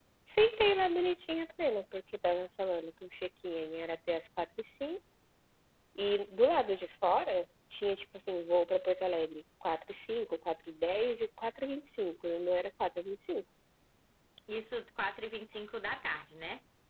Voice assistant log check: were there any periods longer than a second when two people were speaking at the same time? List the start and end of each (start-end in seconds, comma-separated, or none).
none